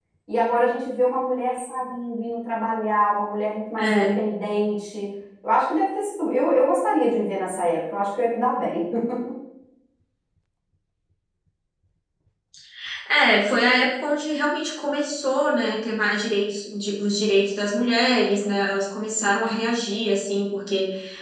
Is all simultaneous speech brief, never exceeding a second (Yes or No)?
Yes